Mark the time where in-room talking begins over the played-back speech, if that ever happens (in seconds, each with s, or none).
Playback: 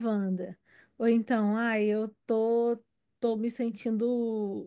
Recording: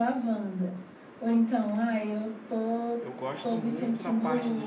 3.0 s